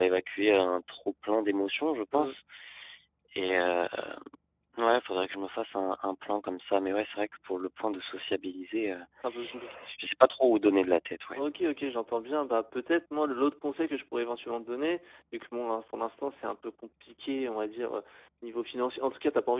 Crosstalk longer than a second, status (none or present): none